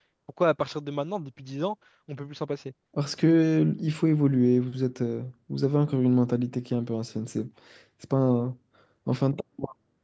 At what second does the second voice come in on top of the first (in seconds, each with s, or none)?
none